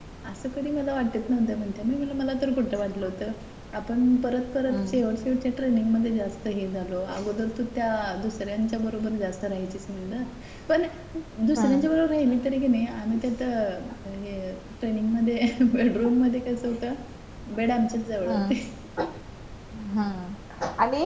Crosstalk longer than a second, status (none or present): none